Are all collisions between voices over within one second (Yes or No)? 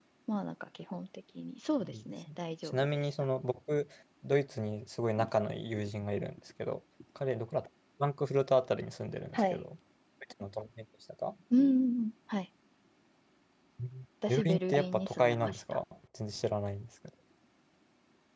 No